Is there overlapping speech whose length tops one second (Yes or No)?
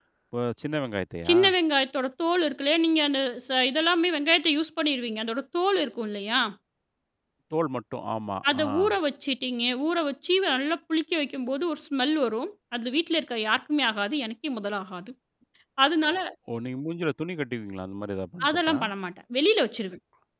No